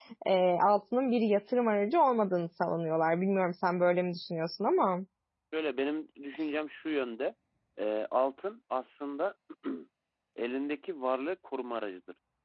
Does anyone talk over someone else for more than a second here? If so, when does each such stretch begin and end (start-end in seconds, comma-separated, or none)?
none